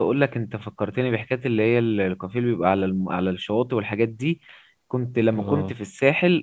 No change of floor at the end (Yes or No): Yes